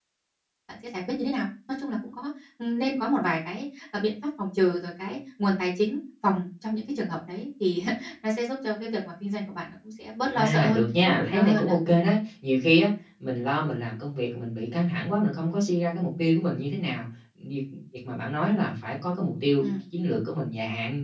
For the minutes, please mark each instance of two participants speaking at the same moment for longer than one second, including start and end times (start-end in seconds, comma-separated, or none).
10.3-11.7